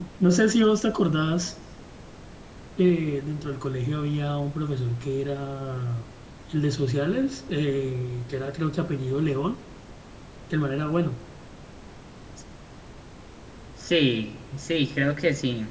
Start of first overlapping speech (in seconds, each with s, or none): none